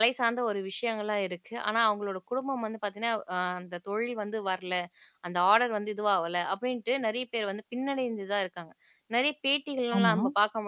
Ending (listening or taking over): listening